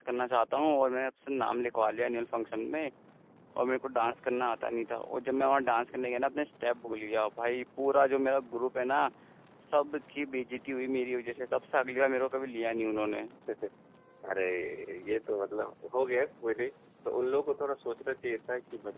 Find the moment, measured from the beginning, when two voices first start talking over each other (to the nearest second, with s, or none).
none